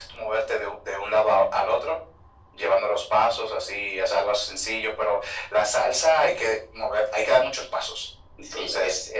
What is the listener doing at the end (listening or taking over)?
taking over